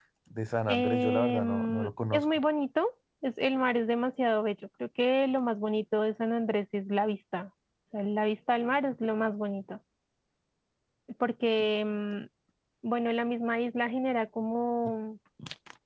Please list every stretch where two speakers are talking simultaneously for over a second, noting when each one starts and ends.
0.7-2.4

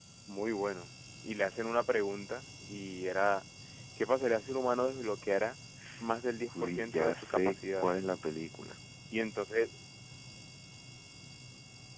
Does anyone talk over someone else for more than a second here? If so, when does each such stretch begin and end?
6.6-7.8

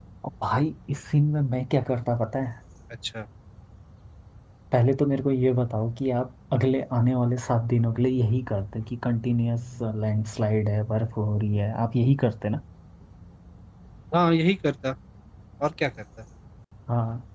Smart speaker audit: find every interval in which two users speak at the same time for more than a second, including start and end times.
none

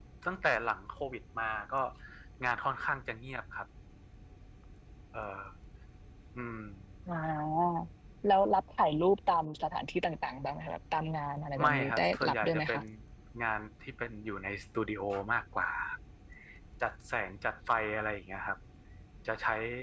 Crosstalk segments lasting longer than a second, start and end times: 11.6-12.8

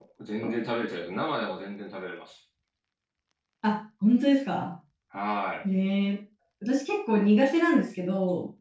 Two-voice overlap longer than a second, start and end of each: none

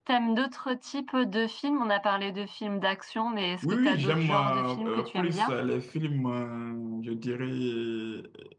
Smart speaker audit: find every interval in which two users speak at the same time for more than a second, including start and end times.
3.6-5.5

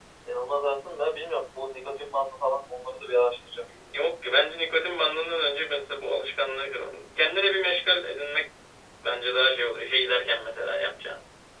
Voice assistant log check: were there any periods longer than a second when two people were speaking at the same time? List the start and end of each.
none

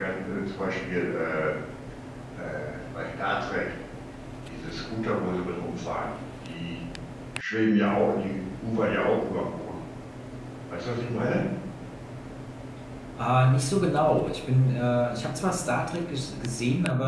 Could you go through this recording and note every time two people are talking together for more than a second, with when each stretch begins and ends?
none

